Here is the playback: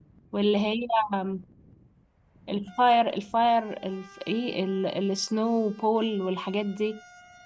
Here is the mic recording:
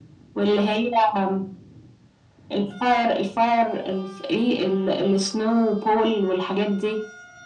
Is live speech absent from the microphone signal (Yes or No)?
Yes